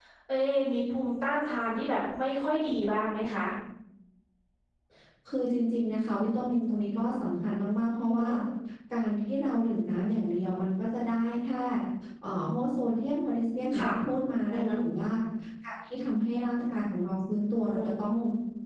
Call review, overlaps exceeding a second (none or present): none